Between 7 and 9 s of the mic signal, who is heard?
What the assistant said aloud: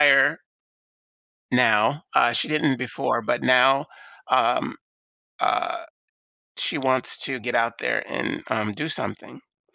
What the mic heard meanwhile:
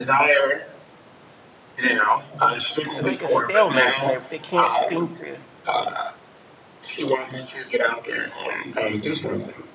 echo only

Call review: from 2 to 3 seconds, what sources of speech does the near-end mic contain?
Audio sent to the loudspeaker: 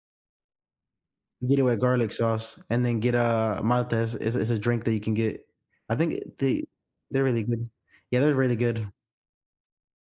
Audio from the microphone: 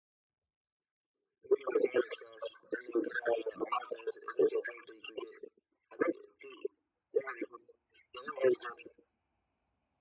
echo only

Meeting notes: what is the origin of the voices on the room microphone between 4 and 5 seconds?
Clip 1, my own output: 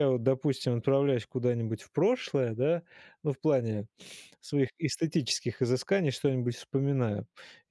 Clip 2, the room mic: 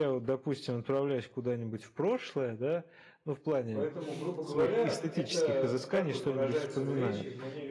both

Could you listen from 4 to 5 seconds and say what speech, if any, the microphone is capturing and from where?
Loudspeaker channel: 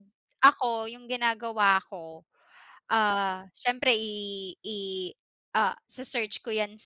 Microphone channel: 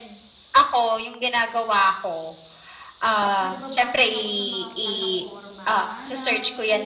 both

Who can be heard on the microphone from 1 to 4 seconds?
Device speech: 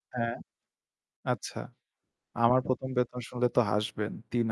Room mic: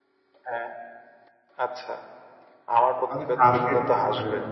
both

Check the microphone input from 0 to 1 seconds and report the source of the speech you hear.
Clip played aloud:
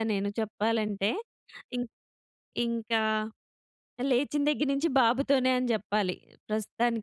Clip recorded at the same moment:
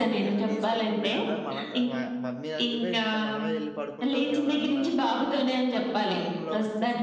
both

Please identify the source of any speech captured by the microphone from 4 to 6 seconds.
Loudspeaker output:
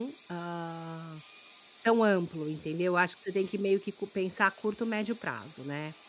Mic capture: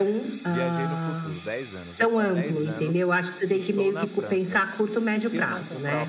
both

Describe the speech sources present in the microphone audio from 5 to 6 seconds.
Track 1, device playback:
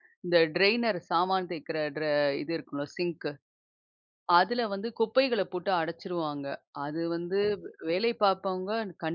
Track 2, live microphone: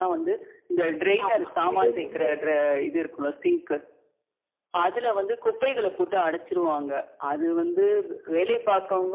echo only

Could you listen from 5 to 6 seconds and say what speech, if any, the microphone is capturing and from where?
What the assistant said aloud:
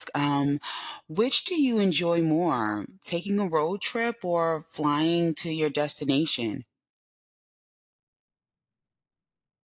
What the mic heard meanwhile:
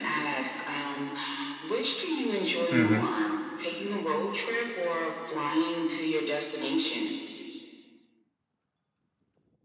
echo only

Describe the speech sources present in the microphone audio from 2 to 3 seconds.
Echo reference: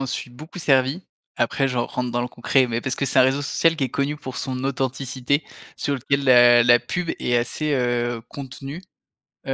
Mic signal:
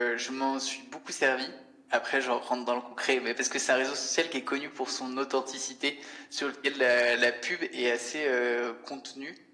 echo only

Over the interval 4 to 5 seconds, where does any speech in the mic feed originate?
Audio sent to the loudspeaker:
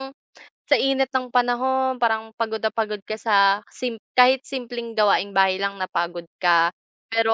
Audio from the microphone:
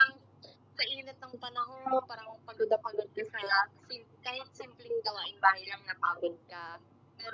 echo only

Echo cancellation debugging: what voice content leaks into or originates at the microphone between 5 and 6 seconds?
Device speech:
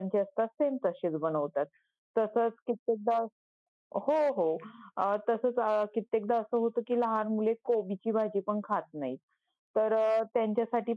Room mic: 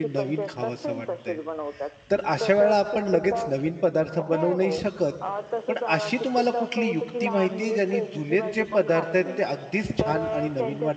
both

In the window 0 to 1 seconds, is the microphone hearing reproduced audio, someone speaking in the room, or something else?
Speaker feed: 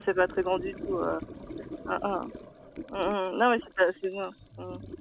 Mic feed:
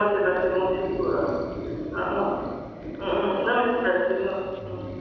echo only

